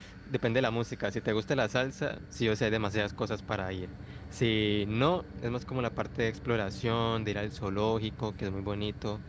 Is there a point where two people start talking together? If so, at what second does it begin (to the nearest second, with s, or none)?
none